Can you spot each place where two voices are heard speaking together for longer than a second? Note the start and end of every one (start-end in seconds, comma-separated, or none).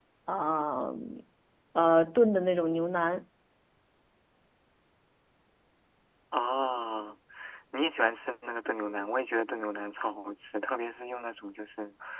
none